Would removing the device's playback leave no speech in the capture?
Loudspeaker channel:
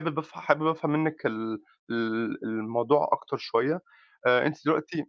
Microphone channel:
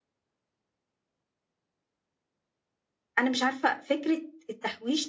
No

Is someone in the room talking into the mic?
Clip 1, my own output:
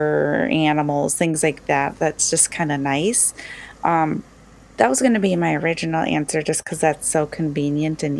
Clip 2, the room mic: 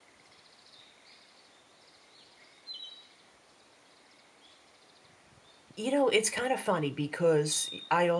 Yes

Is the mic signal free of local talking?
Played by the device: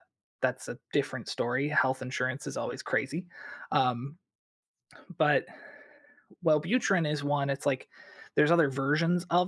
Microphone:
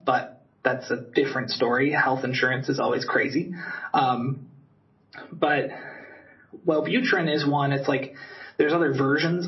Yes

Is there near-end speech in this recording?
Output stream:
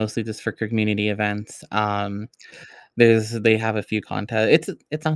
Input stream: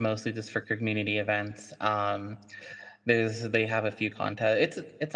No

